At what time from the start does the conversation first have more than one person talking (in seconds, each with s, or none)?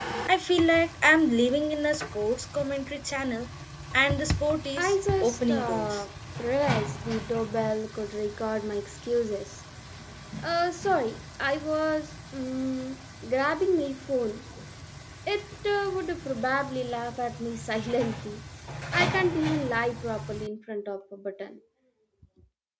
4.8 s